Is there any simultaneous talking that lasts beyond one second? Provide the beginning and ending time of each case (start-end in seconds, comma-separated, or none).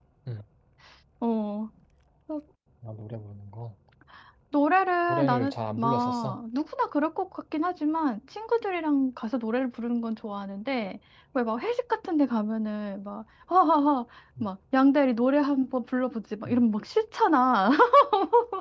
5.1-6.4